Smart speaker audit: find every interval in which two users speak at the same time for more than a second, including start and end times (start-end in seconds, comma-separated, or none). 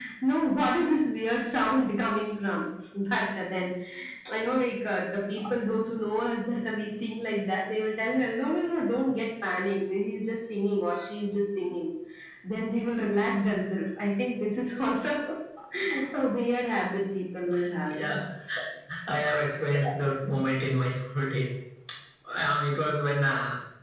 none